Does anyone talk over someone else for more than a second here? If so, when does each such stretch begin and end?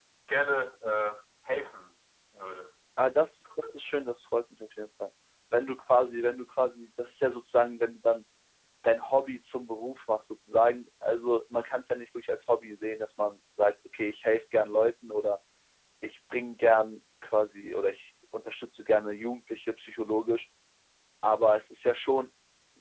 none

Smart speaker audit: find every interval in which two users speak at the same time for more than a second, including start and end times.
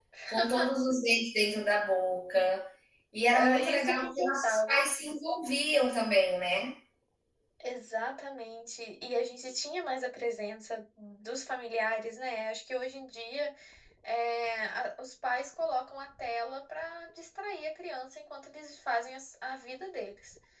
3.3-4.8

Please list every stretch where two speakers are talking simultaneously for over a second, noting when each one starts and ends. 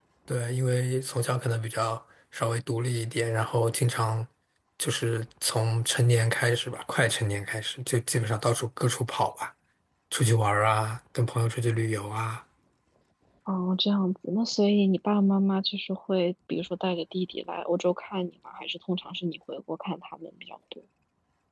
none

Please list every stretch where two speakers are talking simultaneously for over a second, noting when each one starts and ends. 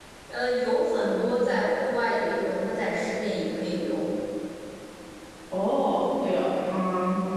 none

